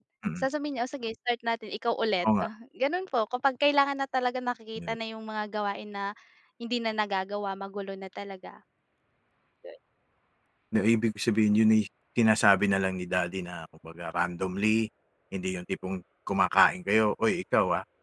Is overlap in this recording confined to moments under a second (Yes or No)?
Yes